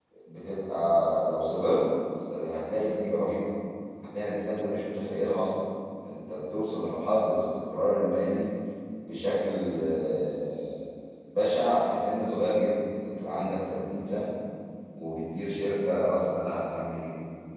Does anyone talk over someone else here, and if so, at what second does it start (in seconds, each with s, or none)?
none